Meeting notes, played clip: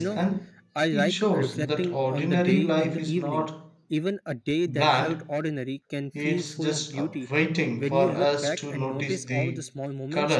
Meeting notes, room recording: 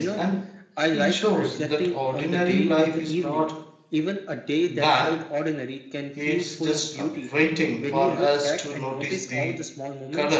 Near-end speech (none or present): none